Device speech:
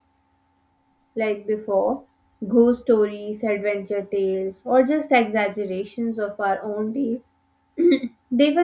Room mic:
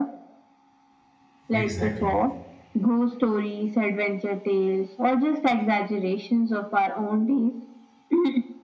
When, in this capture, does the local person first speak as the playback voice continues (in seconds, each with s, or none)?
1.5 s